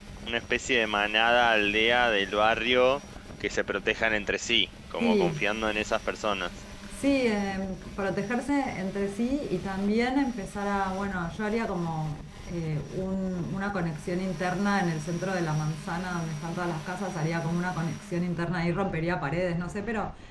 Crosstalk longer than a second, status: none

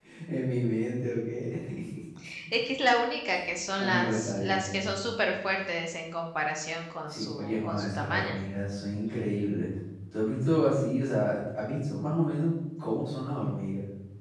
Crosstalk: present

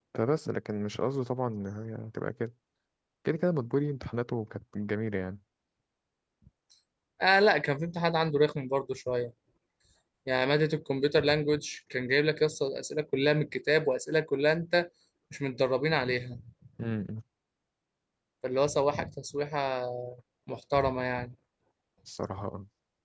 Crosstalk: none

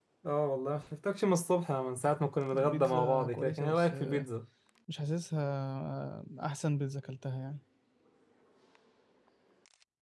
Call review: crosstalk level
present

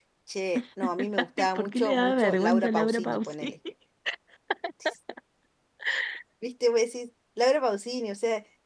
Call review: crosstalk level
present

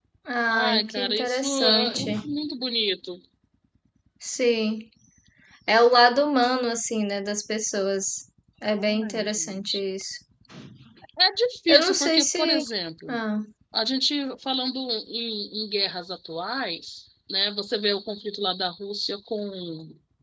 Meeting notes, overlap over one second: present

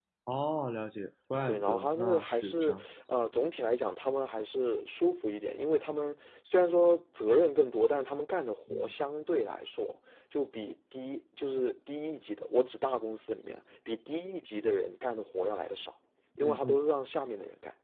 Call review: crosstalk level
present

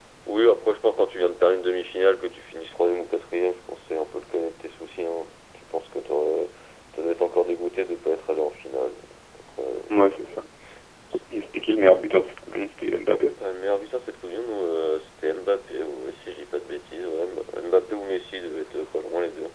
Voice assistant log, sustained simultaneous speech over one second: none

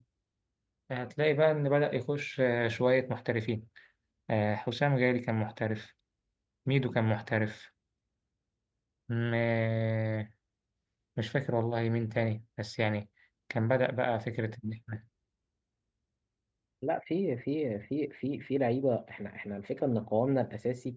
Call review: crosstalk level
none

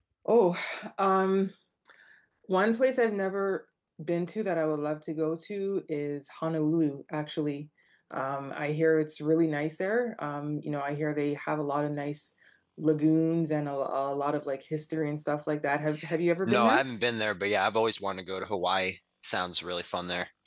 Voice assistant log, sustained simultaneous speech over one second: none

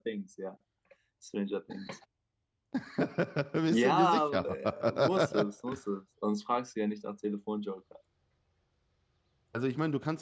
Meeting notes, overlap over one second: present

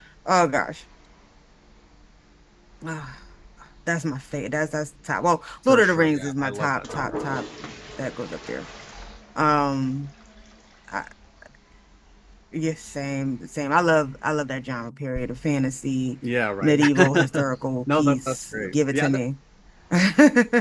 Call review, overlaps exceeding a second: present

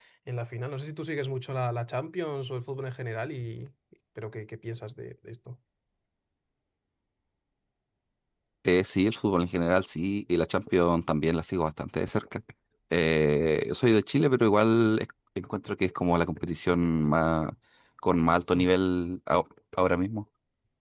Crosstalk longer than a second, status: none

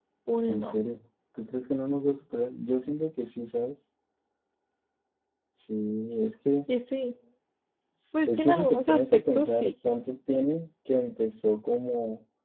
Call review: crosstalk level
present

